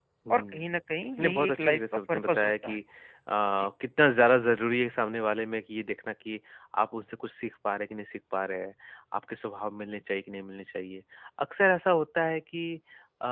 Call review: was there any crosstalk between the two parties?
Yes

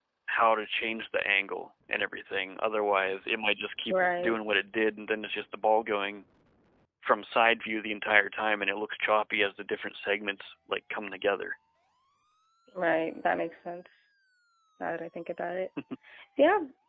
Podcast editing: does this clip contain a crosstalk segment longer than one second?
No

